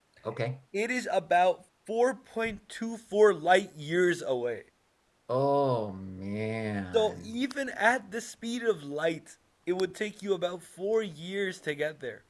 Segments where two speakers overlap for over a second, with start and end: none

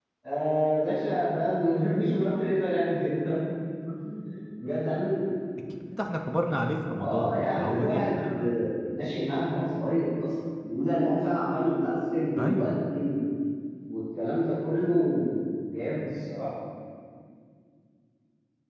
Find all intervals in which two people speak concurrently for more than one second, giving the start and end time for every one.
7.0-8.5

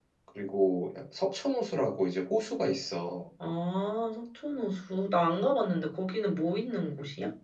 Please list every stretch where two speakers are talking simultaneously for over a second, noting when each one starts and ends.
none

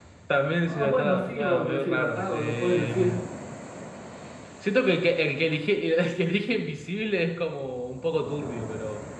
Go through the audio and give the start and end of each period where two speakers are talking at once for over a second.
0.7-3.1

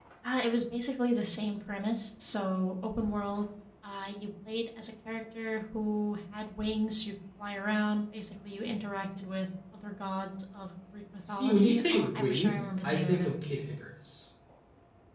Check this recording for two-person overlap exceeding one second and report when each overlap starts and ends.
11.3-13.3

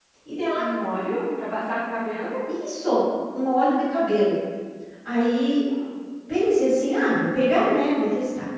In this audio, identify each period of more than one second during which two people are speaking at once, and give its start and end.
none

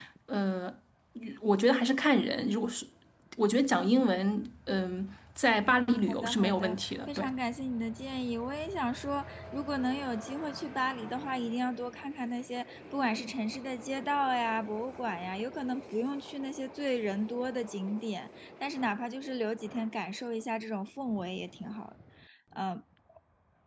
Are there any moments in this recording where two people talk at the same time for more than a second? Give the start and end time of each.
6.1-7.3

